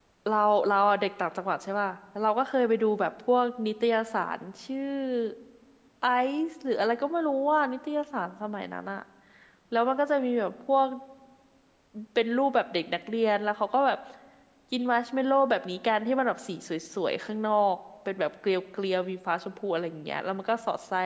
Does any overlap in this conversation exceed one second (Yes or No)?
No